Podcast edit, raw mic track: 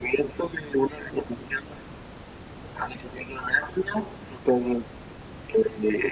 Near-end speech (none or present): none